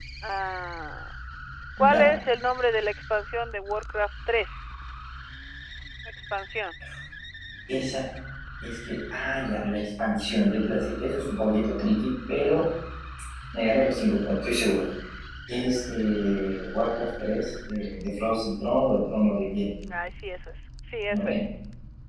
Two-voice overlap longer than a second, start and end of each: none

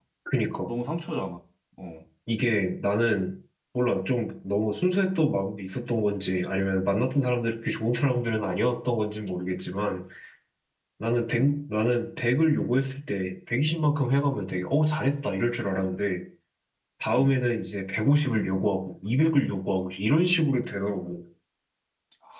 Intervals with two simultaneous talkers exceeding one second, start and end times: none

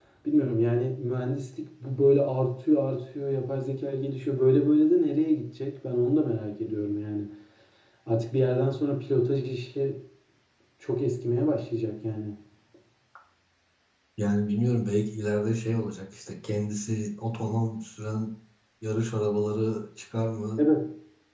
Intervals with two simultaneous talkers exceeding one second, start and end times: none

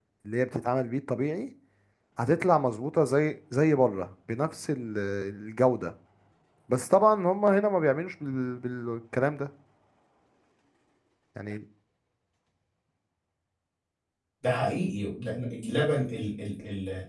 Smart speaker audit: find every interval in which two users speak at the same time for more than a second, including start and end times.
none

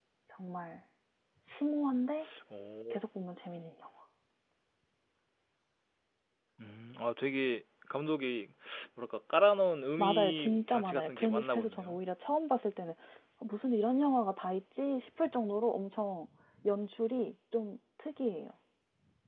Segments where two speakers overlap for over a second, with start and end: 10.0-12.0

